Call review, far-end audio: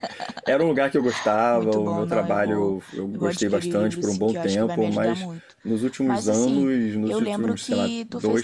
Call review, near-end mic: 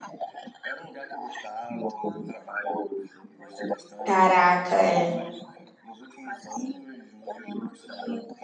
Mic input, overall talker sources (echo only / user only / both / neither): both